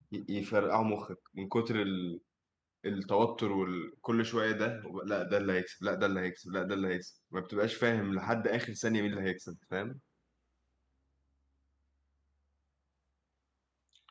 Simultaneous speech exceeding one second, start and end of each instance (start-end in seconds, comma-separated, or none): none